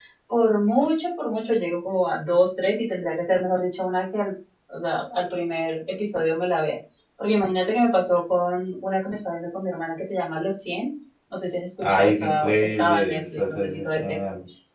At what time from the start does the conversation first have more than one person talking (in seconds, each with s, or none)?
11.8 s